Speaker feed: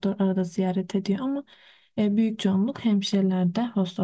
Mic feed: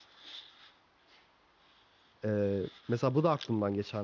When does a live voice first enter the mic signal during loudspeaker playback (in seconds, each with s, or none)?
2.2 s